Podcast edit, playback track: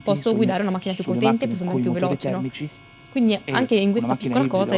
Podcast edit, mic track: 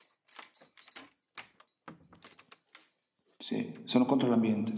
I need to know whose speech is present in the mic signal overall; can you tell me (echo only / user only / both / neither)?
user only